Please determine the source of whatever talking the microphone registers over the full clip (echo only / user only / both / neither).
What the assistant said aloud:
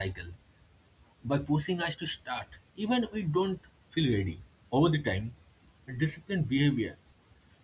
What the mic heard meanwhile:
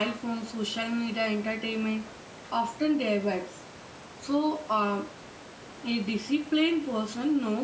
user only